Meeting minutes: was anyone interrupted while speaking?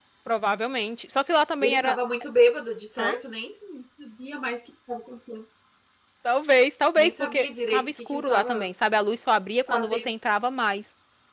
Yes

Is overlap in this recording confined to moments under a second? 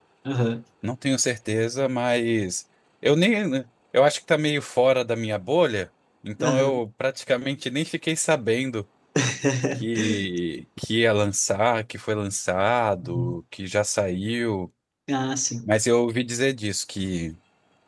Yes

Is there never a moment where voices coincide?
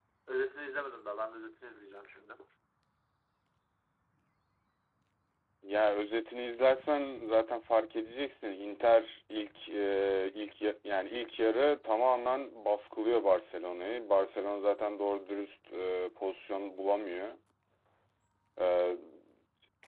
Yes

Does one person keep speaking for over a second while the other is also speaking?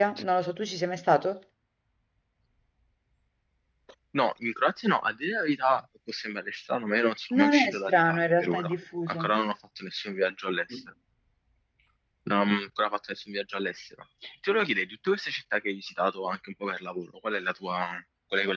Yes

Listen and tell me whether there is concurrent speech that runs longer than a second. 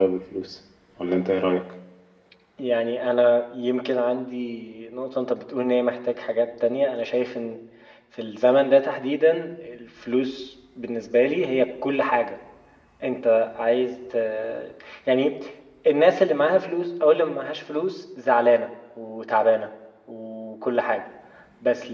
No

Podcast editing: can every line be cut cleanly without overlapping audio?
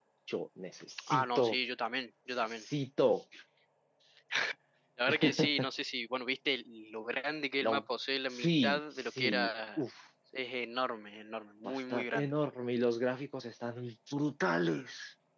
No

